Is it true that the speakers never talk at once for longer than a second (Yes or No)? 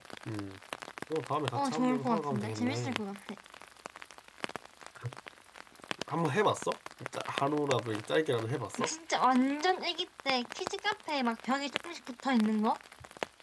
No